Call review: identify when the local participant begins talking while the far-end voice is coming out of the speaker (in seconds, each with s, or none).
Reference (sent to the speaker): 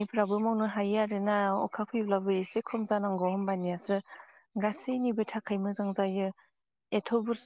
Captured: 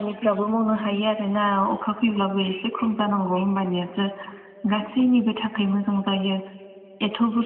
none